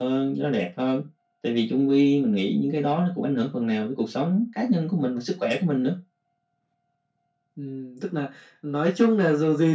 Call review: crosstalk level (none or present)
none